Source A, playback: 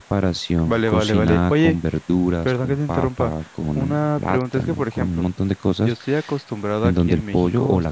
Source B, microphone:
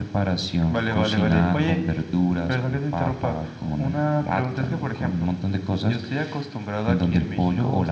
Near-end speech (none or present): none